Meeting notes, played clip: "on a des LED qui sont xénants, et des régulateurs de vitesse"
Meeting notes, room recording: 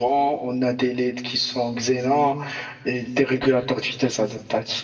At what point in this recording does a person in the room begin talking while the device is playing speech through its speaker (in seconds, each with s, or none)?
none